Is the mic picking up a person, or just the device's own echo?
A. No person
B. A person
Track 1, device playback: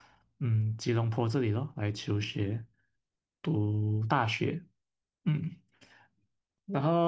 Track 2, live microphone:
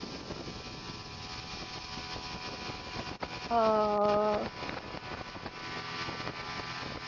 B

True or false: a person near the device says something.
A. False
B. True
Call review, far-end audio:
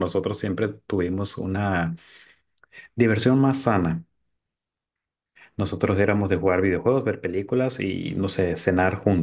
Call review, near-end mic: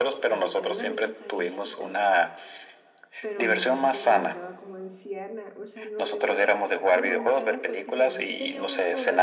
B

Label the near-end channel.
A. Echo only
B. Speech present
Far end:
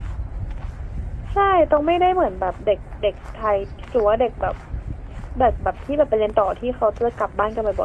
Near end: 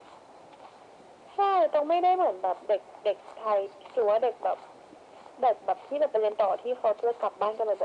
A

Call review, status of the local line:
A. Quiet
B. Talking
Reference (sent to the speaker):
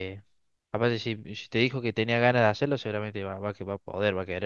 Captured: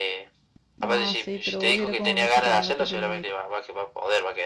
B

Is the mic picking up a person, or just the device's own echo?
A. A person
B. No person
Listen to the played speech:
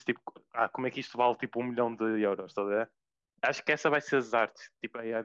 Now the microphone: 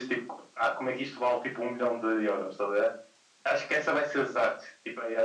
B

